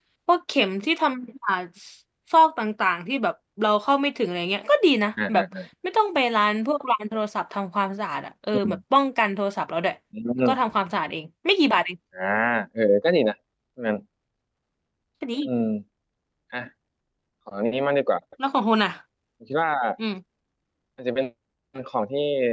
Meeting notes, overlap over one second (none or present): none